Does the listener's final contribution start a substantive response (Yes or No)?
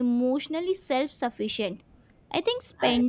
No